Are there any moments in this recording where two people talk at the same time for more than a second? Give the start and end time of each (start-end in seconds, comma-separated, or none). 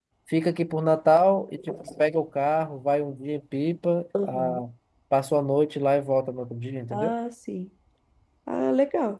none